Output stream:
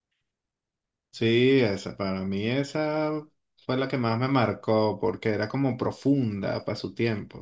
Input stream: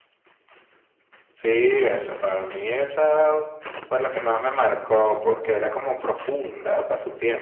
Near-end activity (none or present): none